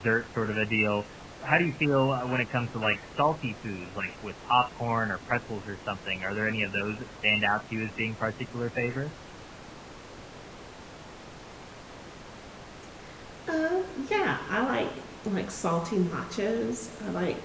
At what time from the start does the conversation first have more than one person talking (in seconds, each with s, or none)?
none